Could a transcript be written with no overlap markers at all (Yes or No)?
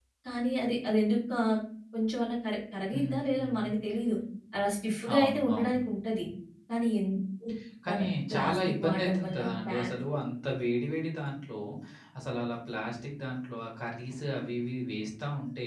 No